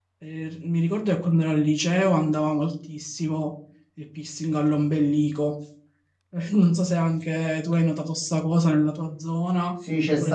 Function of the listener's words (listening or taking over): taking over